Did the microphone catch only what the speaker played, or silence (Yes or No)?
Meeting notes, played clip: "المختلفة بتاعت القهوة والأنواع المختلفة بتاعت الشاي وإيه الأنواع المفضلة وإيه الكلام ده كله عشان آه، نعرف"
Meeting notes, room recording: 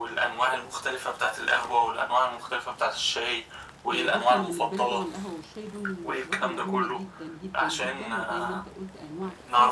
No